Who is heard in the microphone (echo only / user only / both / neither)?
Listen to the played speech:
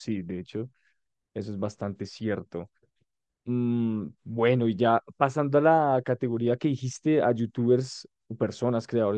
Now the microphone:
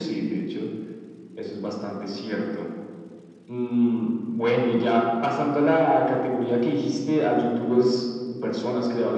echo only